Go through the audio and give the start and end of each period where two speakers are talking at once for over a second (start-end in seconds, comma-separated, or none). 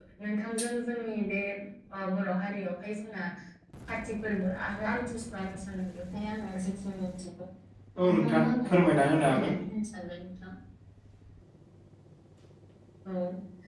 8.1-9.5